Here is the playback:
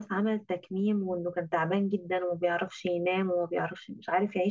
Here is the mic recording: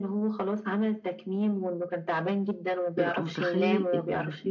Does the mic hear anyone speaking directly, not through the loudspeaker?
Yes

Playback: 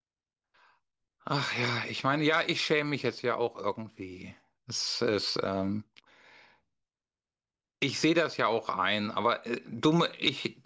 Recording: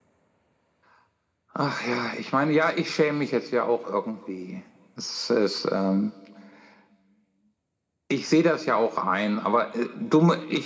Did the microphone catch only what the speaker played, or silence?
Yes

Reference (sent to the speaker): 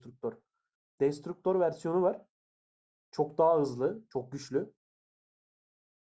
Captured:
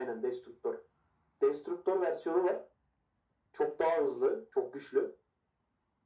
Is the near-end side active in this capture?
No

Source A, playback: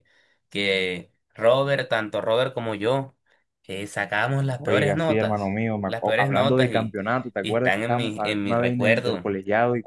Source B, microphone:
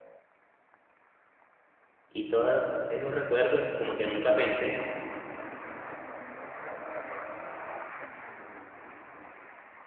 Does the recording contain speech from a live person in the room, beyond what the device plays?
Yes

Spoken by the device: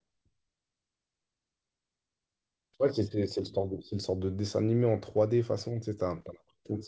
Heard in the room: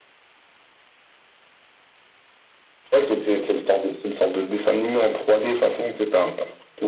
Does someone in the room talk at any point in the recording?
No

